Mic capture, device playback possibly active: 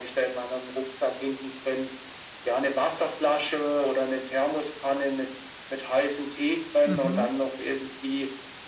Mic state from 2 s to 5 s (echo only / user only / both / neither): echo only